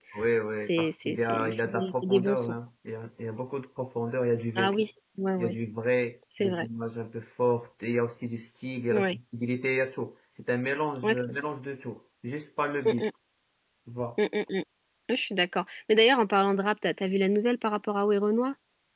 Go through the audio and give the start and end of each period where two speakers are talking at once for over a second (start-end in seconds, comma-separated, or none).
0.7-2.5